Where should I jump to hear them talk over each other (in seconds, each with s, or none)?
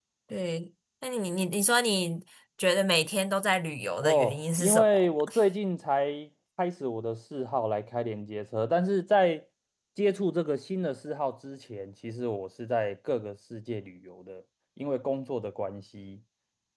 4.0 s